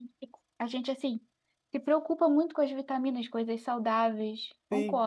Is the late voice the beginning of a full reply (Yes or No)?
Yes